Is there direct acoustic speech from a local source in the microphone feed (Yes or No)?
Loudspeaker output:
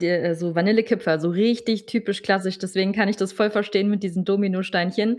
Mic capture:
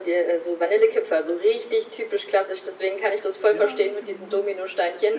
Yes